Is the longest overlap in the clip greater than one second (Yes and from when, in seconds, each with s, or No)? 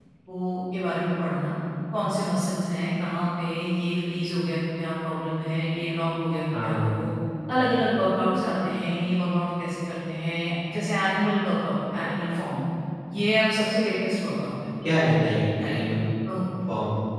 No